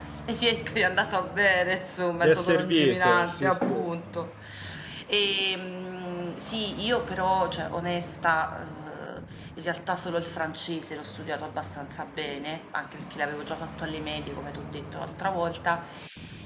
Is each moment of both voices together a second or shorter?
No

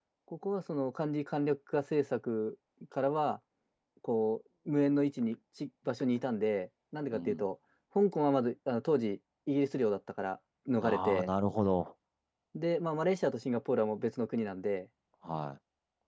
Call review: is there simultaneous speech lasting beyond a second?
No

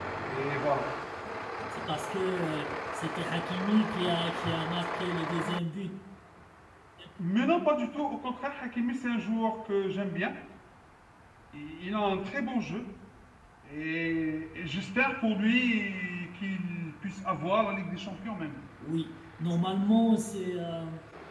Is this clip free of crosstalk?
Yes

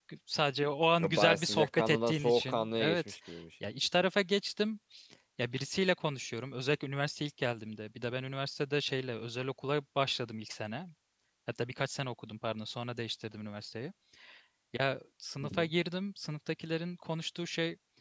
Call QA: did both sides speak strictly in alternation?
No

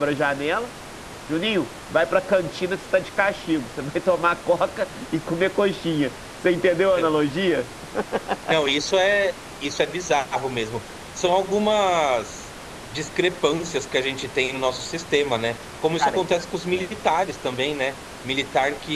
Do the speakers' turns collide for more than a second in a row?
No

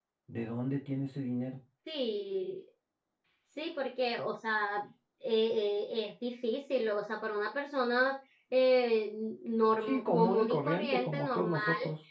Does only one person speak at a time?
No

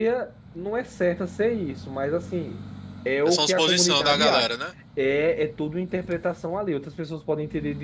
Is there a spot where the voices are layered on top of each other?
Yes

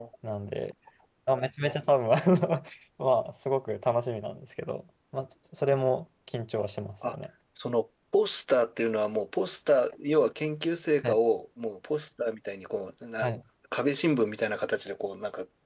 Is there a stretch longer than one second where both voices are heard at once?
No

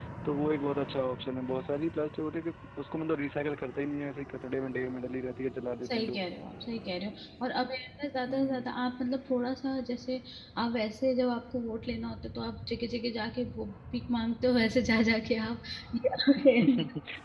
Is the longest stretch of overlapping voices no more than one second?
Yes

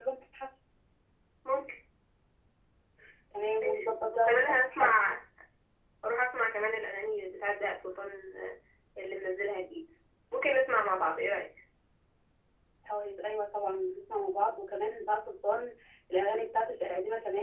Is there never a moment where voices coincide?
No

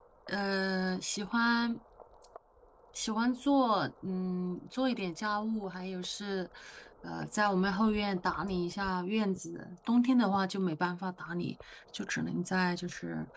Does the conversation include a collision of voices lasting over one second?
No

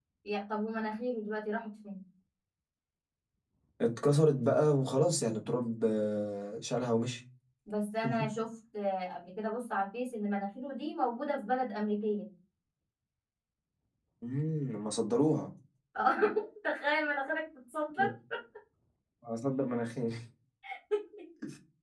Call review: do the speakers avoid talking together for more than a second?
Yes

